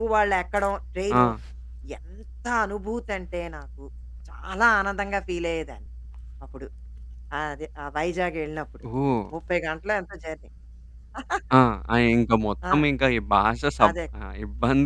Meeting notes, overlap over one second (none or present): none